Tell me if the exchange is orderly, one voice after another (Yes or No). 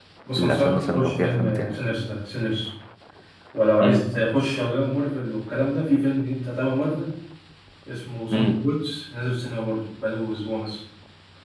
No